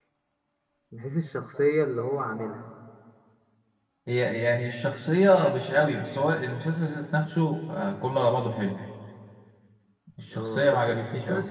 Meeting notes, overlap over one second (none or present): present